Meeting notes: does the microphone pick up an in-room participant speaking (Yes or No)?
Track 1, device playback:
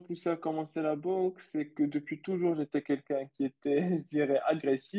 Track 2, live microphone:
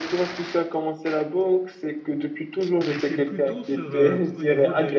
Yes